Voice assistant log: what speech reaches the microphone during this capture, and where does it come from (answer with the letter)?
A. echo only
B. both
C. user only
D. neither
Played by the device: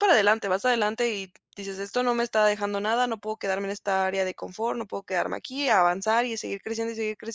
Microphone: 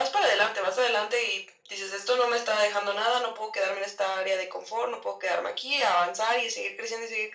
A